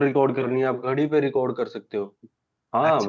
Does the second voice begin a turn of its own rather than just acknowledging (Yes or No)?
Yes